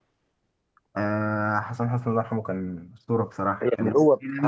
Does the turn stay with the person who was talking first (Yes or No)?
No